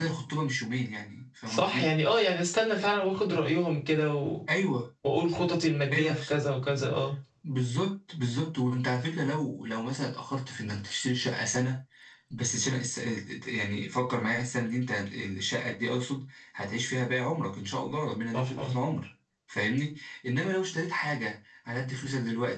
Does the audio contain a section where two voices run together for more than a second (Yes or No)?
No